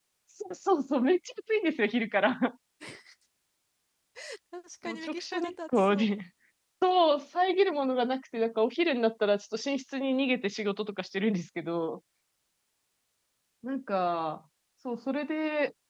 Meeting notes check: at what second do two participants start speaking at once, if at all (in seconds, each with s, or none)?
4.8 s